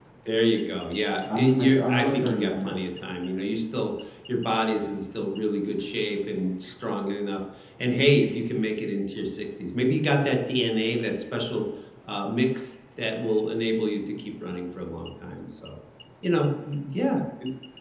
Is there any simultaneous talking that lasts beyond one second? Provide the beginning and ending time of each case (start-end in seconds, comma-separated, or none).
1.3-2.8